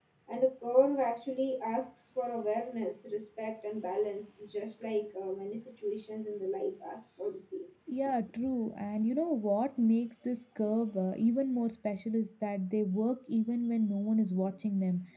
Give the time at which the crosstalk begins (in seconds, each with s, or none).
none